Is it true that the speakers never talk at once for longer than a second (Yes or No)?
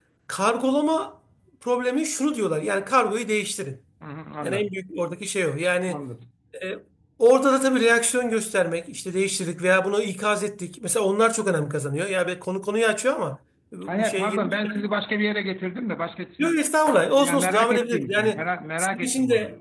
No